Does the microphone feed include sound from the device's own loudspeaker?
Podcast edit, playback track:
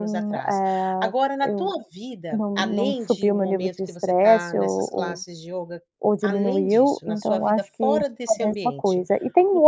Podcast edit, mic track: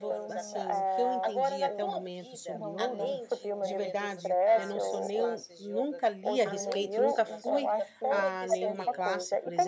Yes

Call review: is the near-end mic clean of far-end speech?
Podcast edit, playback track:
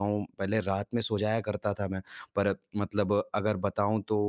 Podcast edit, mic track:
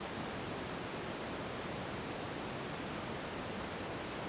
Yes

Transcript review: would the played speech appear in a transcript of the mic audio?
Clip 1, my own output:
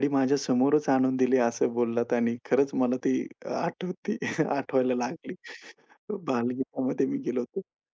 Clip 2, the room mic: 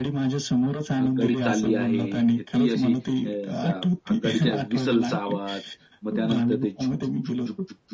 Yes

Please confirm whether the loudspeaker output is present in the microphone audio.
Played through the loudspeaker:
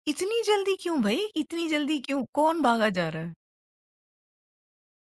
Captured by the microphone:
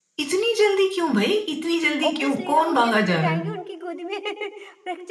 Yes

